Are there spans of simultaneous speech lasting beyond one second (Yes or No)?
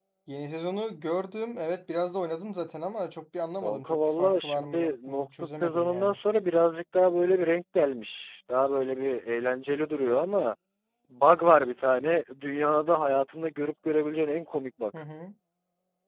Yes